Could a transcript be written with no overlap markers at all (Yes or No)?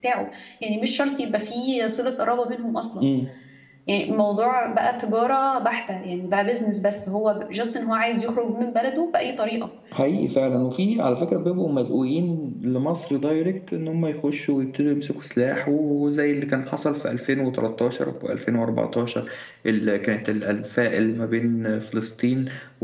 Yes